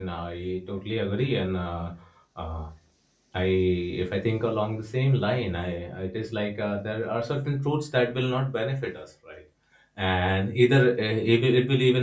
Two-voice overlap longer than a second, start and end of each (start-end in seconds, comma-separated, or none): none